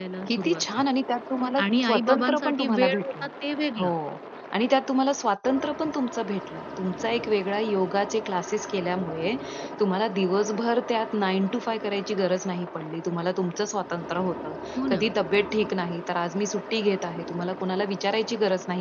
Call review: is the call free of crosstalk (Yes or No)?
No